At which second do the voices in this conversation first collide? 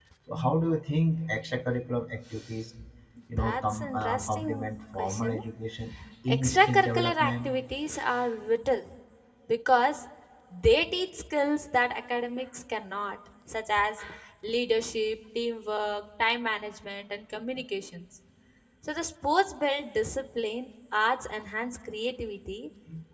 3.4 s

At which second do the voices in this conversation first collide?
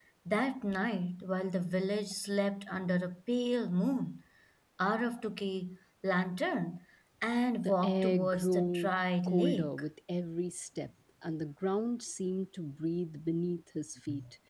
7.6 s

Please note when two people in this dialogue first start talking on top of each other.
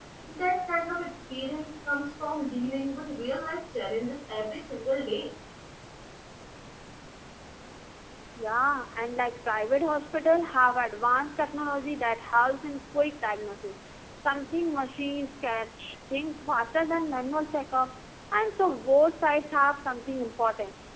none

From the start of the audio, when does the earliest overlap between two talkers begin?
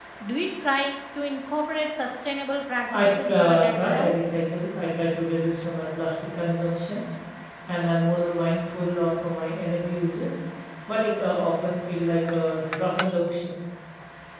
2.9 s

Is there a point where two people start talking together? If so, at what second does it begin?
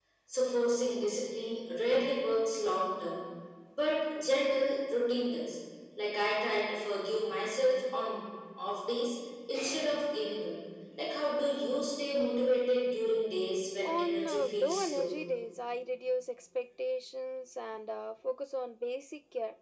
13.8 s

